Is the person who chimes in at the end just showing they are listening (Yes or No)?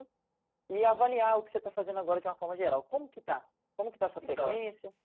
No